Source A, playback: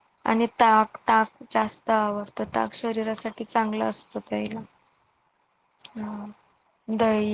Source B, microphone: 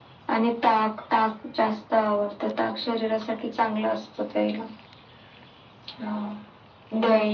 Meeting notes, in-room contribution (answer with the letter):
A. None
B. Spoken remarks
A